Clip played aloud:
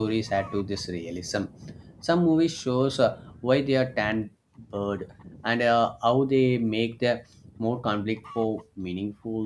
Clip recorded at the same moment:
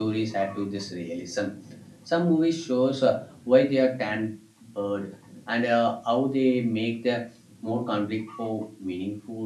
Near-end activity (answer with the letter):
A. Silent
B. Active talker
A